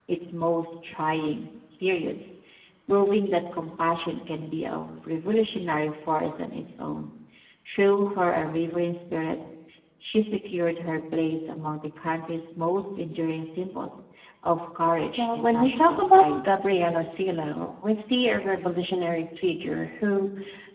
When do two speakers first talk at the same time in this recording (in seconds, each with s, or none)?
15.2 s